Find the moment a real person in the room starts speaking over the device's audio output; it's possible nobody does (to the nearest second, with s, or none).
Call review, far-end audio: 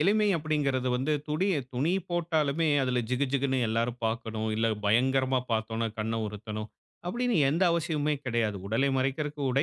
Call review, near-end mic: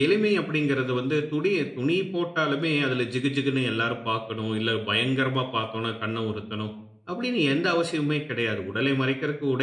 none